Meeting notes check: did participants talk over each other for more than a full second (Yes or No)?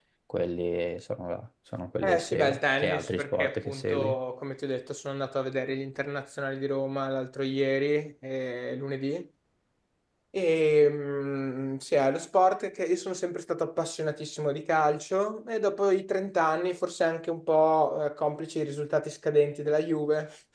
Yes